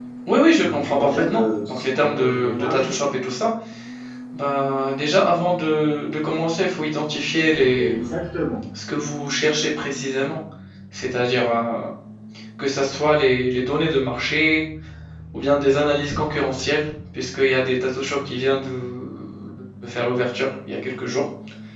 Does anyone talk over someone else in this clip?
Yes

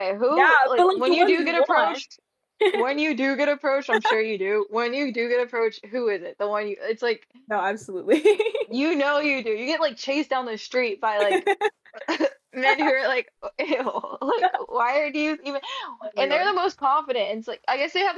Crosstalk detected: Yes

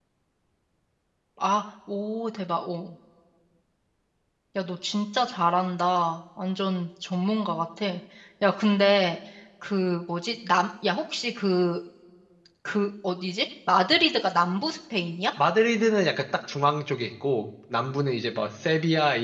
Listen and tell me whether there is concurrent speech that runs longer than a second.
No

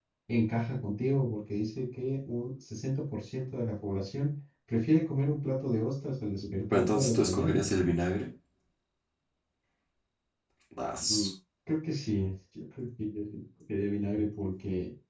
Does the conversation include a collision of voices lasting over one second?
Yes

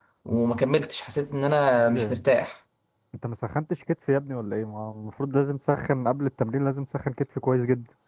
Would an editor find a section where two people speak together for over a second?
No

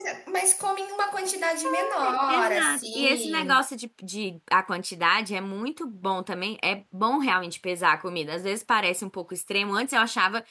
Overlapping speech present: Yes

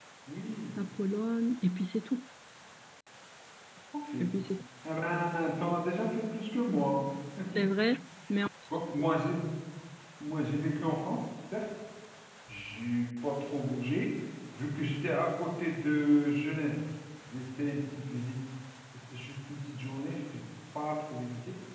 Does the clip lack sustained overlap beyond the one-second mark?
Yes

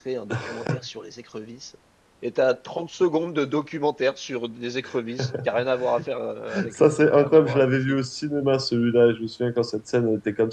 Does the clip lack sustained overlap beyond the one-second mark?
No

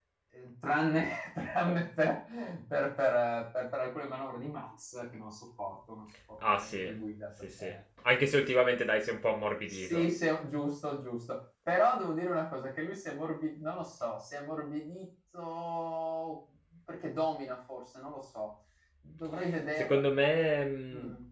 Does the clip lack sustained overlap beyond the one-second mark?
Yes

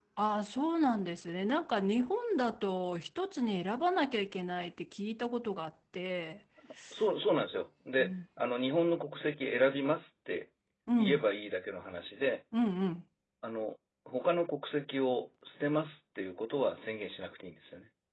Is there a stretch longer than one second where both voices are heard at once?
No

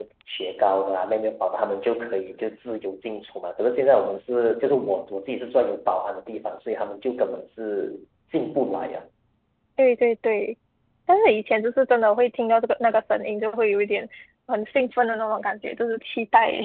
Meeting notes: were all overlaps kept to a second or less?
Yes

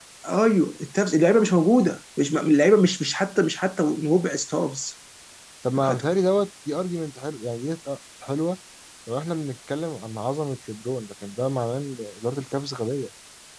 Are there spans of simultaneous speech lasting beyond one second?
No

